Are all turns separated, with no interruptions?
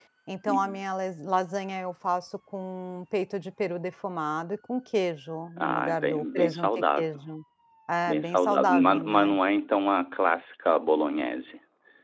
No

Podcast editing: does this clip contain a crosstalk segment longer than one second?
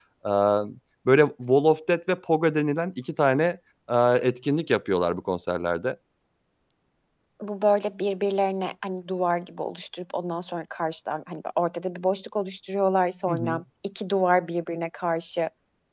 No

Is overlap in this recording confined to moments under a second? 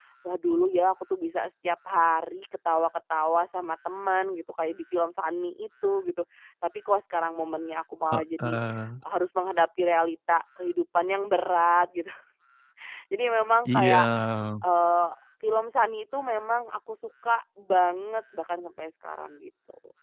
Yes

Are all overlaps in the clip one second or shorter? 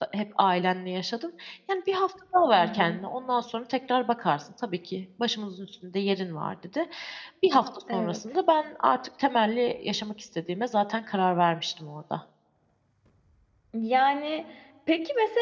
Yes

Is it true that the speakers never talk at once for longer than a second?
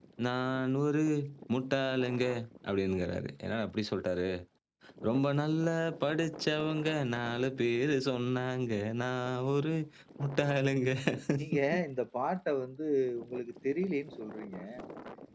Yes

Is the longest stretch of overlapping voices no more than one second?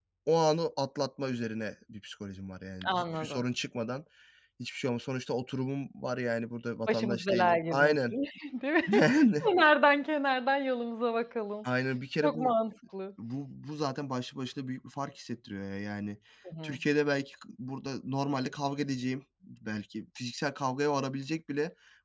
No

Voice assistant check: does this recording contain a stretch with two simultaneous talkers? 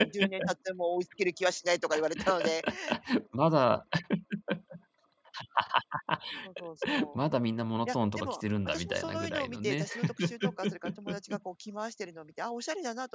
Yes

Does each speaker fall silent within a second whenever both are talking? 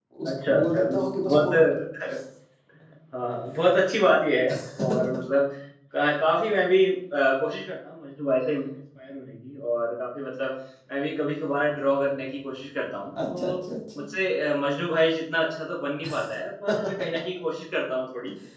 No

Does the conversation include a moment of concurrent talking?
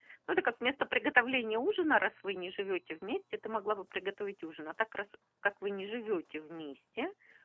No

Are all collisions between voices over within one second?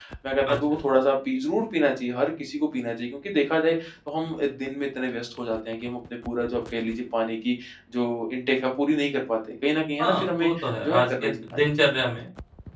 No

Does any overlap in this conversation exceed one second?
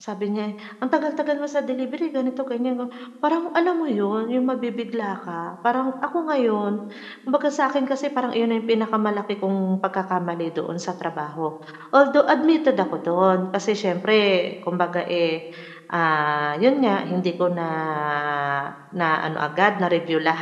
No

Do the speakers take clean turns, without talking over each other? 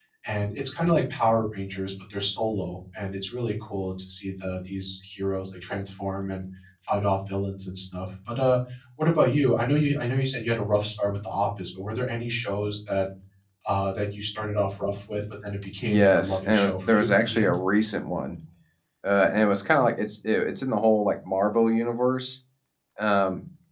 No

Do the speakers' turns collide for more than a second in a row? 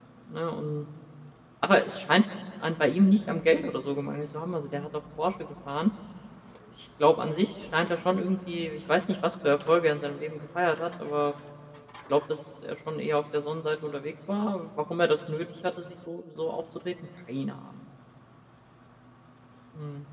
No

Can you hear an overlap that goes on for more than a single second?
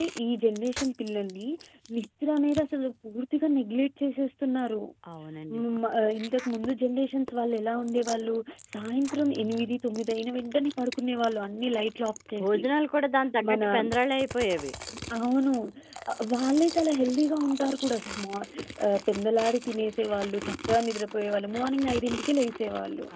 No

